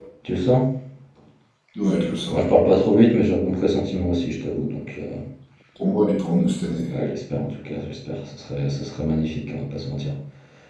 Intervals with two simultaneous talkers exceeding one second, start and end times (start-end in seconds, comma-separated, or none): none